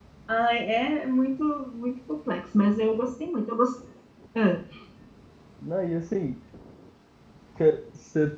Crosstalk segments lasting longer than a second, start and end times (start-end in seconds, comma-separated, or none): none